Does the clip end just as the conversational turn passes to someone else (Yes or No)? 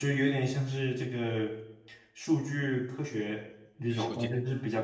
No